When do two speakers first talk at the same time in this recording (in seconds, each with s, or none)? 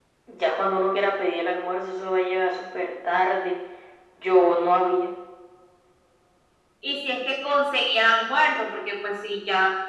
none